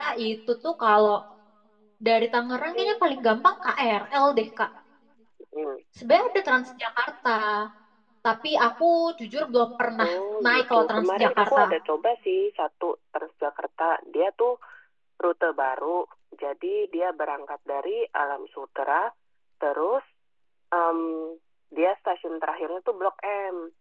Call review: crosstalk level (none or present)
present